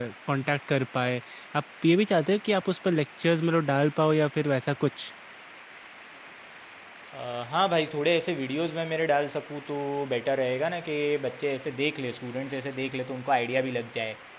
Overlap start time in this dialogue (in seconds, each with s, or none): none